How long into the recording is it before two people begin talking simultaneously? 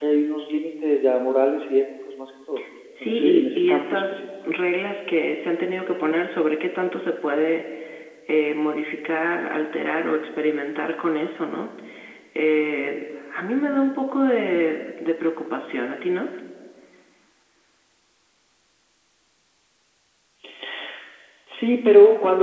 3.0 s

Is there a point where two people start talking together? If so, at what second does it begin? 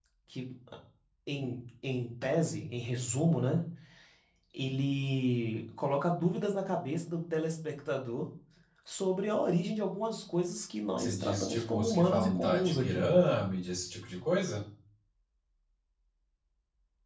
11.0 s

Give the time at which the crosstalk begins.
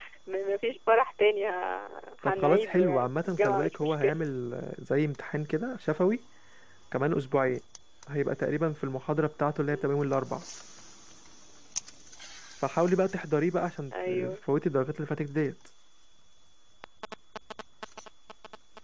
2.2 s

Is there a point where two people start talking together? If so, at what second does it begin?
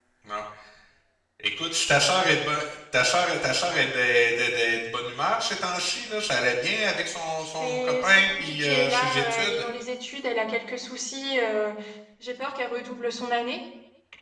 7.6 s

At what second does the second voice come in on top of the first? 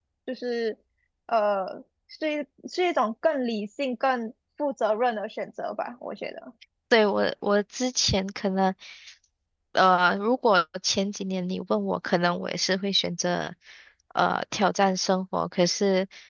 none

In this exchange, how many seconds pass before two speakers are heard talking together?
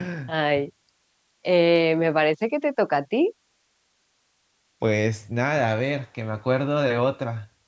none

